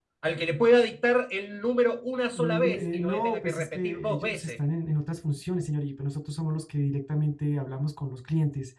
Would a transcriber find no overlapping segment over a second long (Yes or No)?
No